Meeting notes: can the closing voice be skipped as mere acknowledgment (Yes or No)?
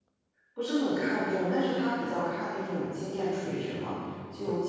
Yes